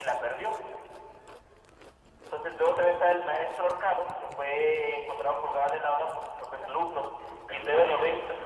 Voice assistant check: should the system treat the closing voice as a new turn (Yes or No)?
No